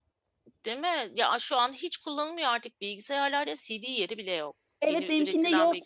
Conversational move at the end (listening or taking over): taking over